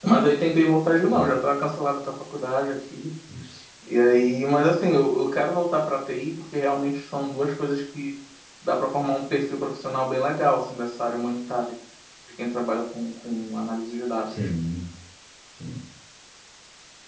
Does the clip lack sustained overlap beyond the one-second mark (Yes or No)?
Yes